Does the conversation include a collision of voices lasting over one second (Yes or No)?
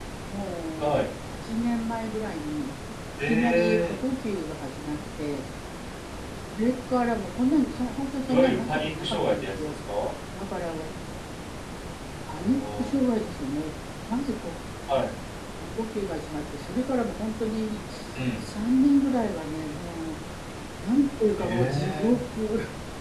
Yes